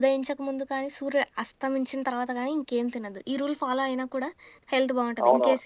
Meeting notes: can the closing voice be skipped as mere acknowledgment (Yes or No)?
No